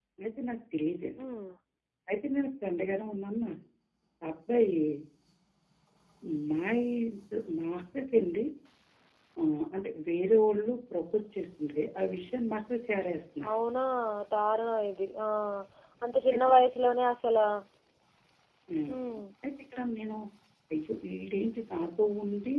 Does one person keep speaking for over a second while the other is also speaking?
No

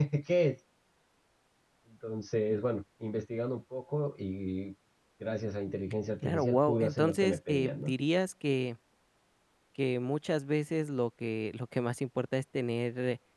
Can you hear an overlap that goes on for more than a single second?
Yes, from 6.2 s

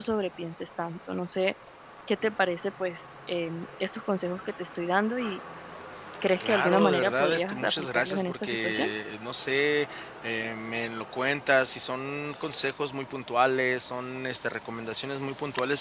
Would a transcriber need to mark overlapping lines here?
Yes, from 6.4 s

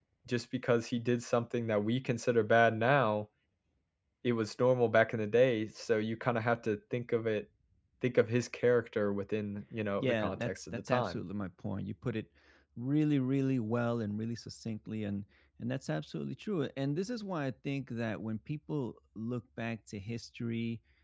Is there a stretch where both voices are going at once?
Yes, from 10.0 s

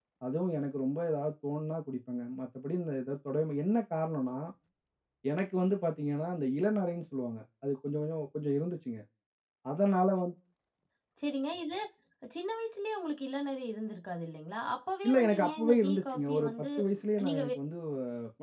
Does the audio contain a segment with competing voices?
Yes, from 15.1 s

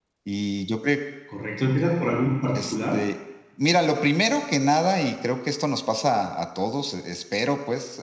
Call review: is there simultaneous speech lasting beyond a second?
No

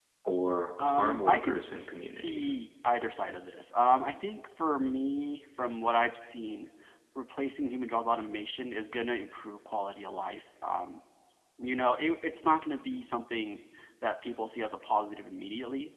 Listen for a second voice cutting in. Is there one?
Yes, from 0.8 s

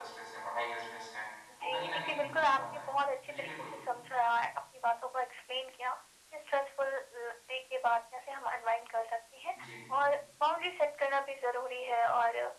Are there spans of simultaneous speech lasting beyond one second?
Yes, from 1.5 s

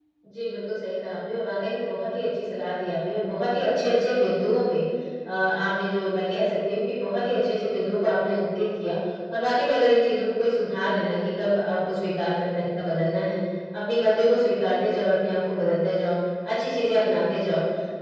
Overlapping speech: No

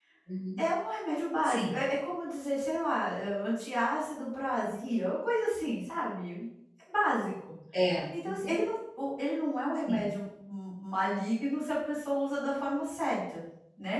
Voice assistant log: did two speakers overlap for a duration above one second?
No

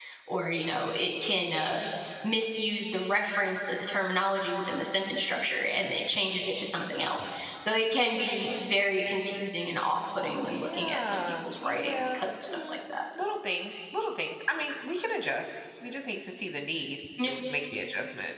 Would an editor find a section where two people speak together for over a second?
Yes, from 10.4 s

